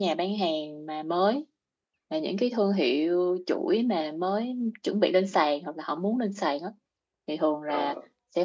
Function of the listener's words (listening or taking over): listening